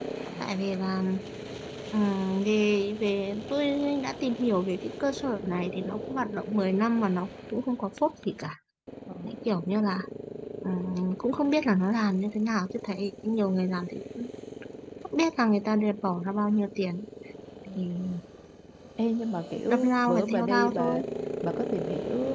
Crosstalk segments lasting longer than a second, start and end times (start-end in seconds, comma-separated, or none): 19.7-21.0